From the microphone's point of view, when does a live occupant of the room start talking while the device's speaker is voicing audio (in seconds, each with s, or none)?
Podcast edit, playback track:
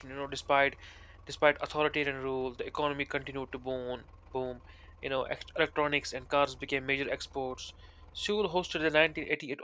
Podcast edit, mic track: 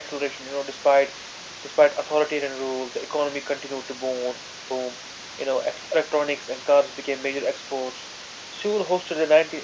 none